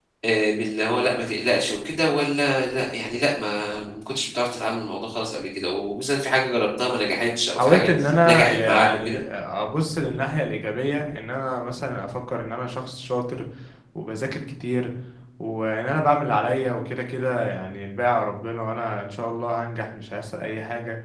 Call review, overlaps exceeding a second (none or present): present